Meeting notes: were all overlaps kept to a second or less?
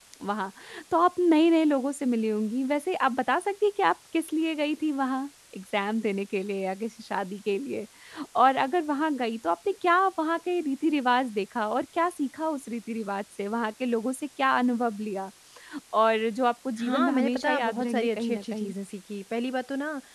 No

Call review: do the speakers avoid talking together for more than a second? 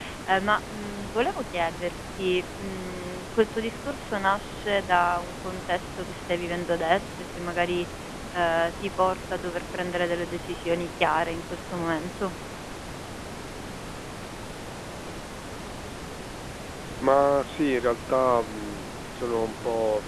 Yes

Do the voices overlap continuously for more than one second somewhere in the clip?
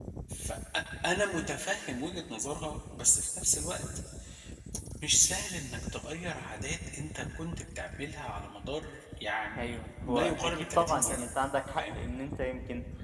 Yes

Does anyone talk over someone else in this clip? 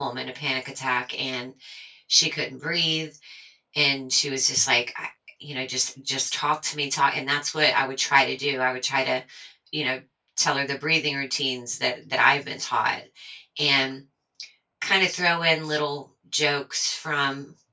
No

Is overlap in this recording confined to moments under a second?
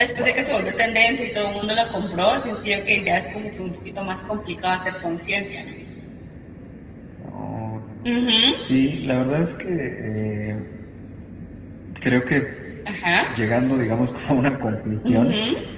Yes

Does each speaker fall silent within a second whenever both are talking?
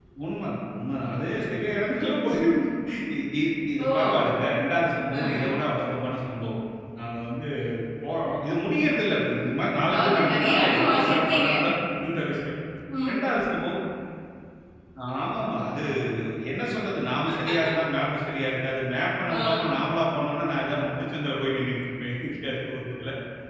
No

